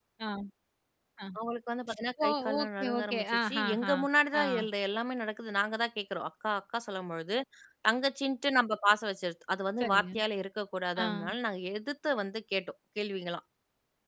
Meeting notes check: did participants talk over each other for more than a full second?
Yes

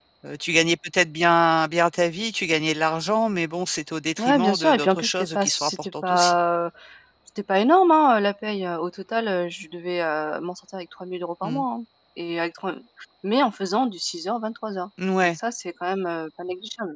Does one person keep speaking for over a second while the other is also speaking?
Yes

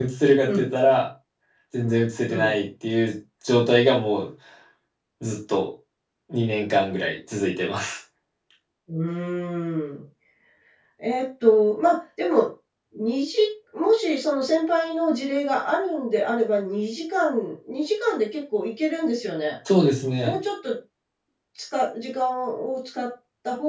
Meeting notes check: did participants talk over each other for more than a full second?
No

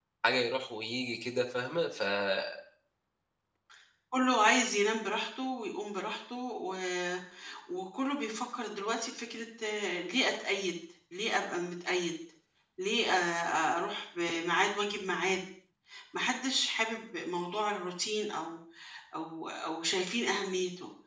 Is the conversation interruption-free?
Yes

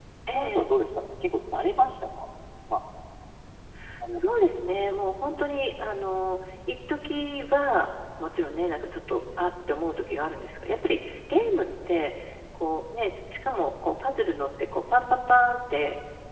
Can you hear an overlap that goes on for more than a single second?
No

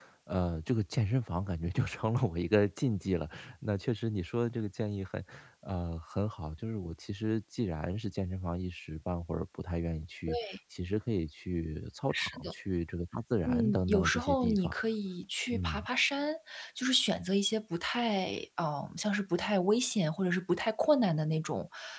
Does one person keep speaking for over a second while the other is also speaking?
Yes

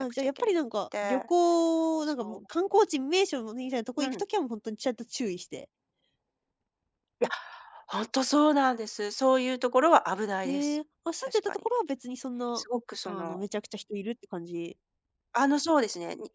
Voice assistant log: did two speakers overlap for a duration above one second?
No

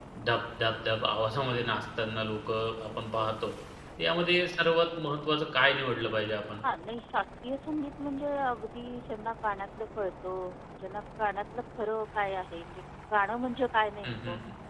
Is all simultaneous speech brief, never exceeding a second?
Yes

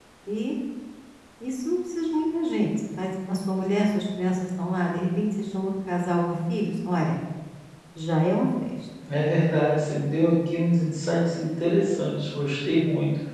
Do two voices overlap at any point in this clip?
No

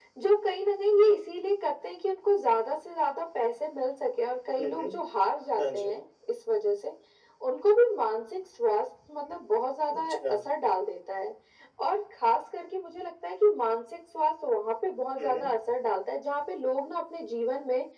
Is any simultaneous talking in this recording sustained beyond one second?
No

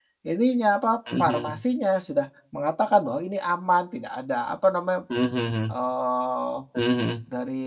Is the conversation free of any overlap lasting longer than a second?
Yes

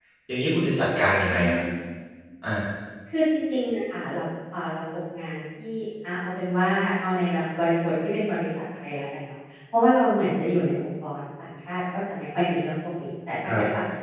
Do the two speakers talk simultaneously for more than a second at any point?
No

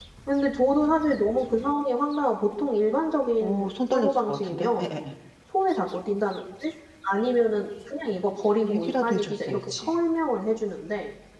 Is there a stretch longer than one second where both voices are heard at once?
Yes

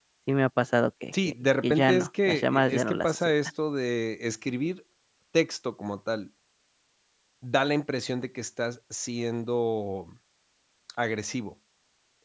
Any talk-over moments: Yes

